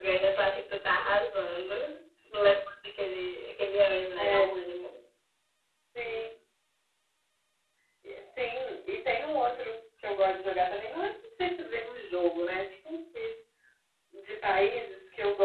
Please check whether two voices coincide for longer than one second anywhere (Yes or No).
No